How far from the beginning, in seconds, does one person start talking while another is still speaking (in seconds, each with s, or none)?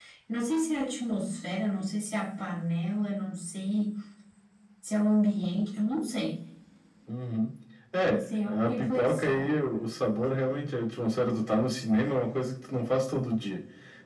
8.1 s